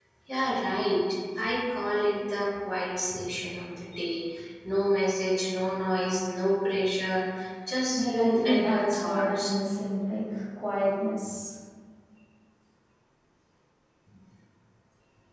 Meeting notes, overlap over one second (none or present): present